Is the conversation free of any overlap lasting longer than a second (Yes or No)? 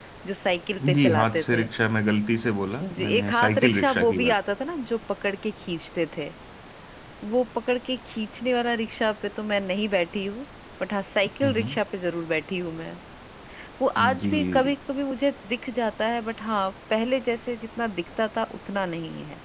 No